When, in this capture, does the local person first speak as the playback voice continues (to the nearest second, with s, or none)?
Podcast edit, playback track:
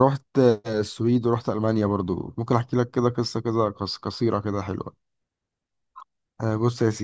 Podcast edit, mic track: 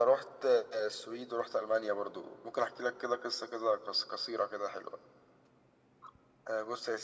none